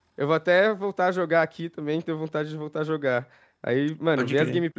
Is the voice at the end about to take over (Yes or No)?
No